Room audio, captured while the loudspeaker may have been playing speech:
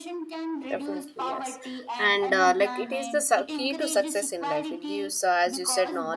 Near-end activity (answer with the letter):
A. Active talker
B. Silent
A